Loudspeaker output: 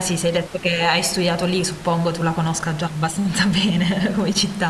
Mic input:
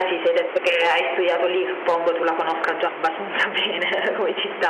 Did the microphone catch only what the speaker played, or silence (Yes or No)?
Yes